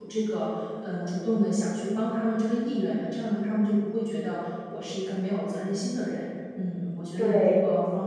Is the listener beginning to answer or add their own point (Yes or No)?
No